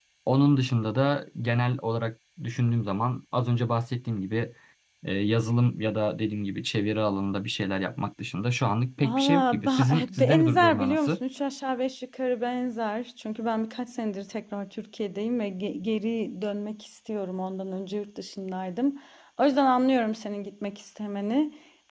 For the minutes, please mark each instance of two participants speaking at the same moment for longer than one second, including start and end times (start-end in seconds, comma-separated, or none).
9.0-11.2